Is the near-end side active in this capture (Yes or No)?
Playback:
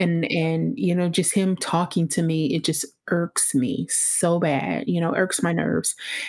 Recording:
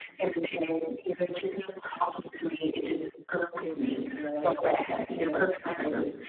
Yes